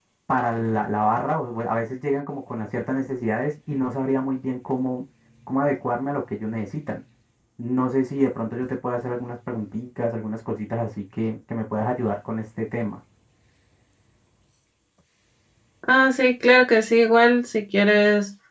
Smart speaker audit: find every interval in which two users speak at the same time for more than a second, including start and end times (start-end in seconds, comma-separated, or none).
none